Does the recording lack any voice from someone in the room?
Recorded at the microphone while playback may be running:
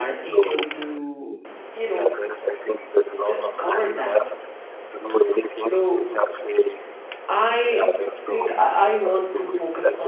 No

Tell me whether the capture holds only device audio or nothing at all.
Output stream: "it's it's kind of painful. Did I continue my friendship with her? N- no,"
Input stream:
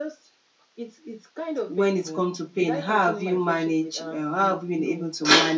No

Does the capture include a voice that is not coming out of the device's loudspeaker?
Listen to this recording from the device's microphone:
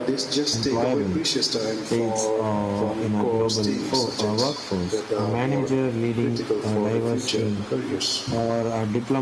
Yes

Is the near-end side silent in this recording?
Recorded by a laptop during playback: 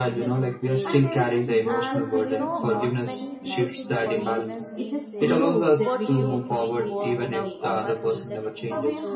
No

